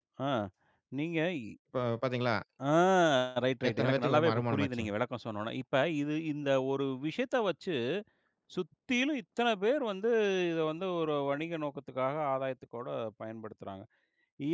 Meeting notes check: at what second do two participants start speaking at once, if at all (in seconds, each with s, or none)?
3.7 s